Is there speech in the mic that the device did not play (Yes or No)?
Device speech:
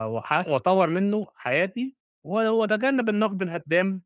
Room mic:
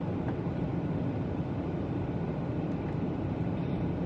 No